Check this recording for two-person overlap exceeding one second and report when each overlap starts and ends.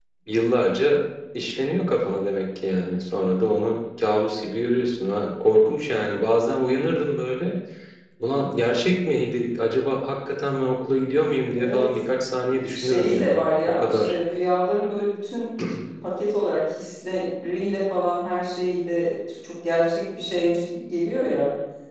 12.7-14.1

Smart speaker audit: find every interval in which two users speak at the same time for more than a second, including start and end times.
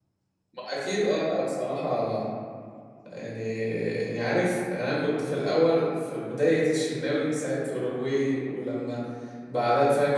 none

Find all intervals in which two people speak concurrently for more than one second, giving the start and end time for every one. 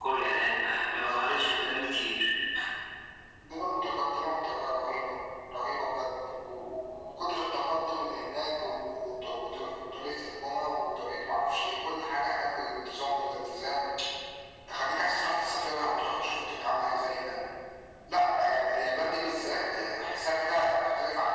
none

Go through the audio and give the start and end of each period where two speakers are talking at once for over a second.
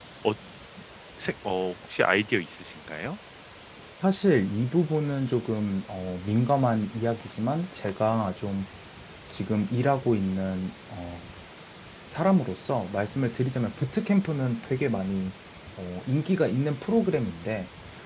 none

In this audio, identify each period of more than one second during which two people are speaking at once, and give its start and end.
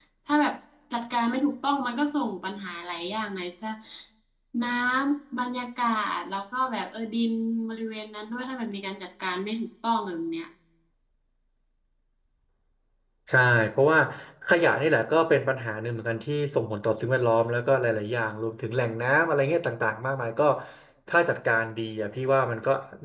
none

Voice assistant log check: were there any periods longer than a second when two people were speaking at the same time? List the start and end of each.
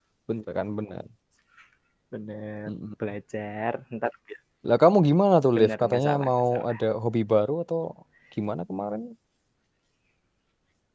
5.6-6.8

